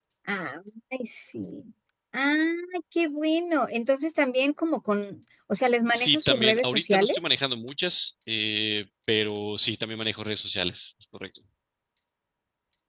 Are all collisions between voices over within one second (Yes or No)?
No